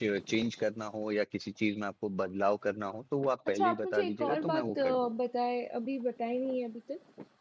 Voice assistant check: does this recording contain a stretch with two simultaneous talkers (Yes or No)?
Yes